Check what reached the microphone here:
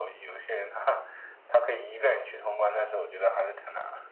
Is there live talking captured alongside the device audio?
No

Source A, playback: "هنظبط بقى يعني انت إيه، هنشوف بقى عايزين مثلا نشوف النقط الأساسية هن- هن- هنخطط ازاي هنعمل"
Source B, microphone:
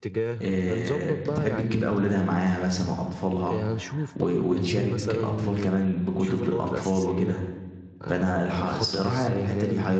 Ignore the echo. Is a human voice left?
Yes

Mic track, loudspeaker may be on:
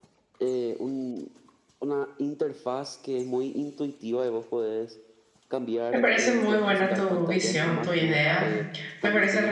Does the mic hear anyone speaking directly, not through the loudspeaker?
Yes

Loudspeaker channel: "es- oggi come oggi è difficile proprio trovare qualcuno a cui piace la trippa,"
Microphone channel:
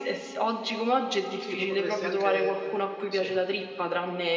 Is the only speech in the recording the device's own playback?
No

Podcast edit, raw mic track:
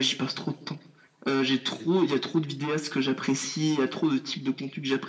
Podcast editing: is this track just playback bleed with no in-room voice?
Yes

